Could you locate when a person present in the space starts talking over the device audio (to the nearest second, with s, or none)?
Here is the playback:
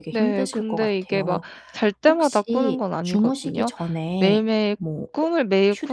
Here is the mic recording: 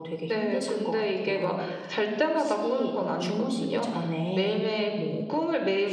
none